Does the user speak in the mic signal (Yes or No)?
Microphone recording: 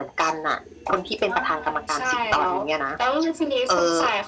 No